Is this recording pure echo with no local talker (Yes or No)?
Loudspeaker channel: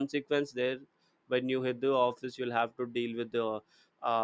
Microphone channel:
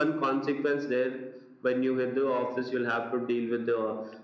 Yes